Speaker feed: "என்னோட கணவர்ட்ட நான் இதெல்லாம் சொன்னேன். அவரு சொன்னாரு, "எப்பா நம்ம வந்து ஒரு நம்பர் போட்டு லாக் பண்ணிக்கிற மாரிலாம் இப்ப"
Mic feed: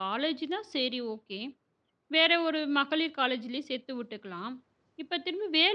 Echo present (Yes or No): No